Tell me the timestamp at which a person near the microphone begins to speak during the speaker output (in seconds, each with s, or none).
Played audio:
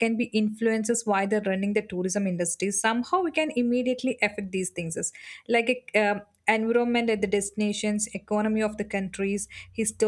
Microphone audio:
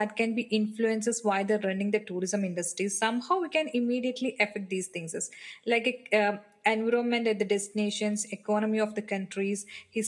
none